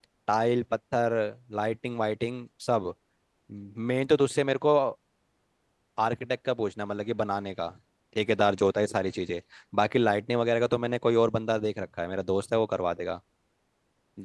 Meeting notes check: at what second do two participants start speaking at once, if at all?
none

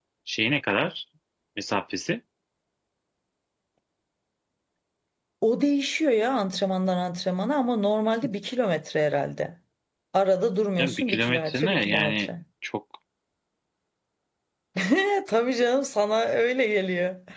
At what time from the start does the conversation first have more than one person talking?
11 s

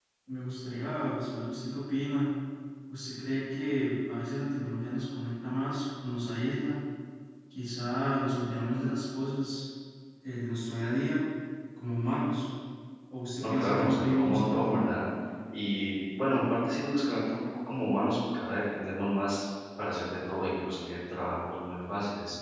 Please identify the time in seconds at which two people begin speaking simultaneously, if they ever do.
13 s

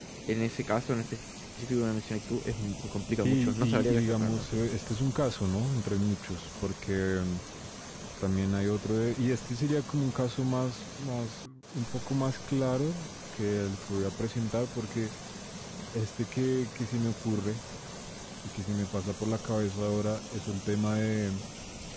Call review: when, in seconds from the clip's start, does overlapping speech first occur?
3 s

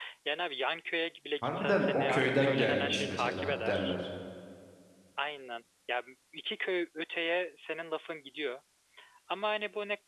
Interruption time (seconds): 1 s

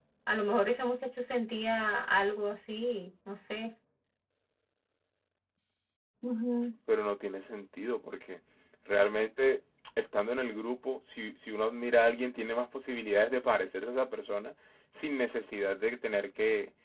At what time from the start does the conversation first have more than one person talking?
none

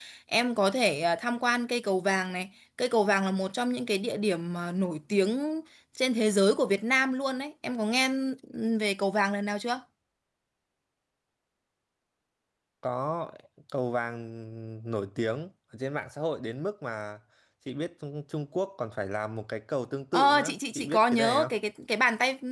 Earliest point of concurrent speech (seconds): 20 s

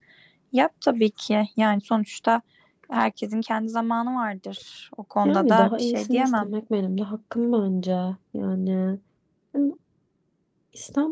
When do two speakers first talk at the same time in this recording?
5 s

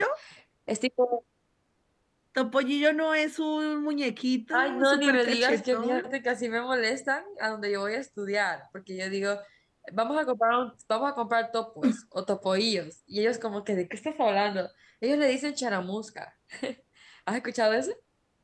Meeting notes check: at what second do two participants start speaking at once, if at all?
5 s

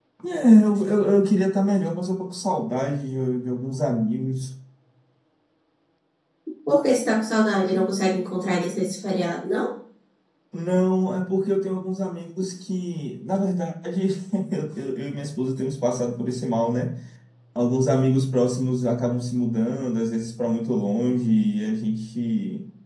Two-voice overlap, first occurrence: none

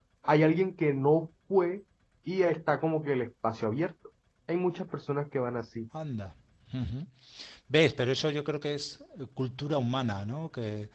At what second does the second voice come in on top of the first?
none

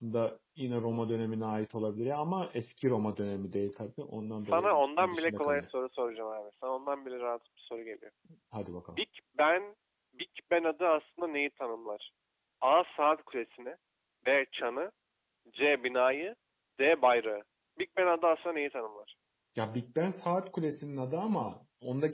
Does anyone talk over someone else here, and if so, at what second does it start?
4 s

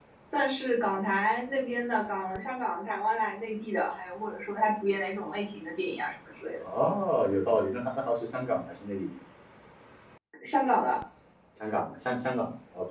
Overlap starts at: none

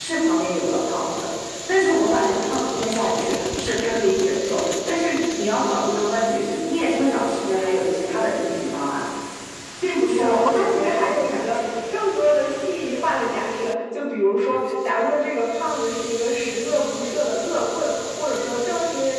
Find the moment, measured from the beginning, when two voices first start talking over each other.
10 s

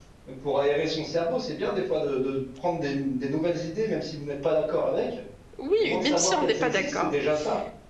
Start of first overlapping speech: 6 s

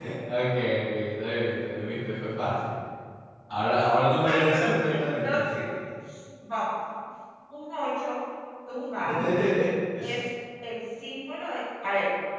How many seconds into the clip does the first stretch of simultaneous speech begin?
4 s

